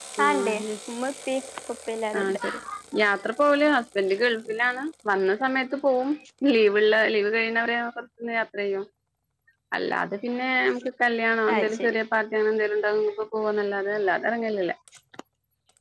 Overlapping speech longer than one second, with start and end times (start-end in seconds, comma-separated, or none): none